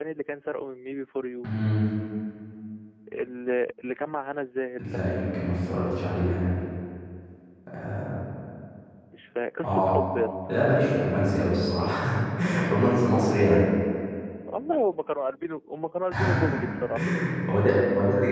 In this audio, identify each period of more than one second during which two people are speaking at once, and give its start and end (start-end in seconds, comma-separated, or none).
none